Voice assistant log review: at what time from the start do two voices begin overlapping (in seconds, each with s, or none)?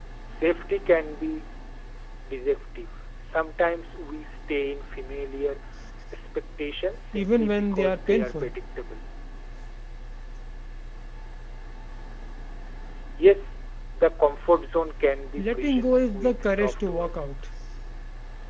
7.2 s